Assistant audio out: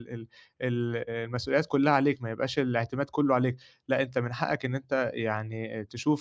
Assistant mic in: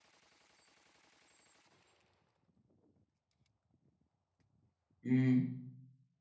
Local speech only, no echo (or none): امم.